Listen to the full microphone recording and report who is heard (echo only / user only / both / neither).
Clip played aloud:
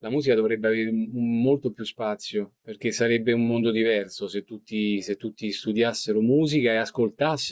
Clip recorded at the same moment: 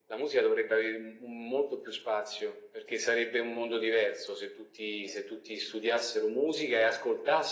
echo only